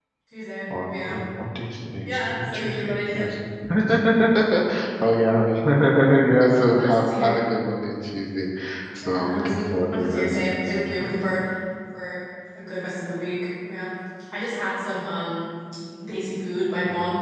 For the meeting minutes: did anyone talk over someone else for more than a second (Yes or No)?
Yes